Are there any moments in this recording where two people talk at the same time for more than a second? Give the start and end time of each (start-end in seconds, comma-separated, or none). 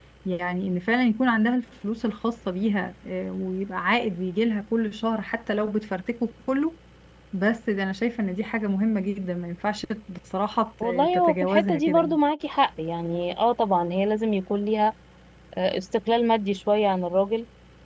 10.8-12.2